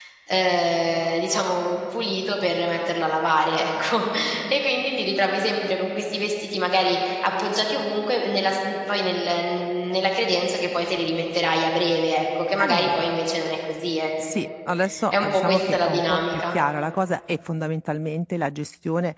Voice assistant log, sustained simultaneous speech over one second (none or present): present